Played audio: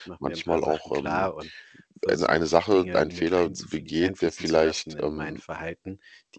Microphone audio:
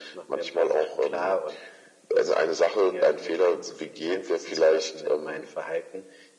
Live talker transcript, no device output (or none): none